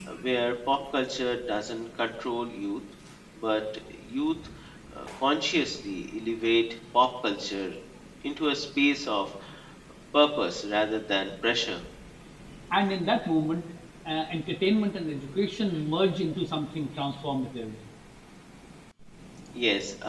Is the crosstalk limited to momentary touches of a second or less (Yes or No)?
Yes